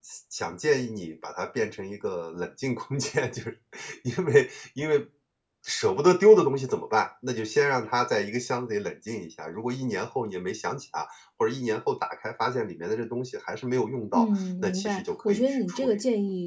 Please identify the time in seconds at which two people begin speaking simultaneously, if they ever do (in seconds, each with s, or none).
14.1 s